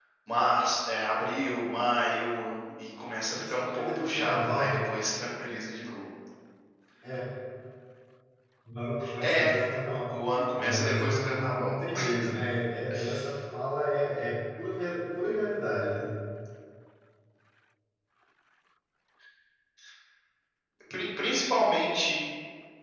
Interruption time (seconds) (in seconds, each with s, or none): 3.3 s